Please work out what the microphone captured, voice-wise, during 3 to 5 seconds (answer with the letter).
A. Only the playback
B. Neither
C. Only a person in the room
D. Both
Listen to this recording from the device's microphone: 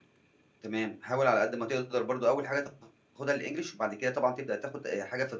C